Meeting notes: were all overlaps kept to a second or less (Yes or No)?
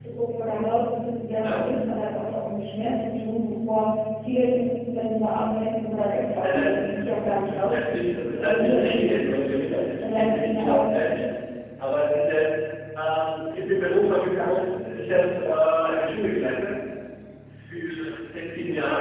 No